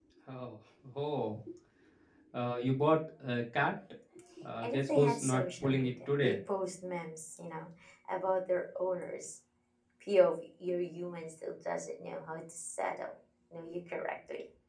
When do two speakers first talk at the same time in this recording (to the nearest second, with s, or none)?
5 s